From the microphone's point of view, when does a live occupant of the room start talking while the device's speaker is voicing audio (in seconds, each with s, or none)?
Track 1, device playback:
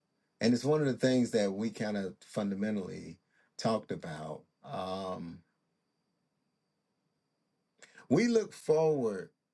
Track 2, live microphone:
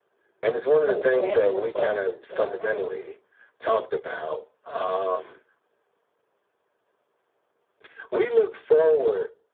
0.9 s